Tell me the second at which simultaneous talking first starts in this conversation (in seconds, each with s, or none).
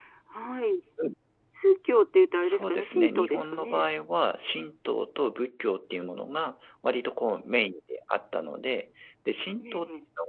2.4 s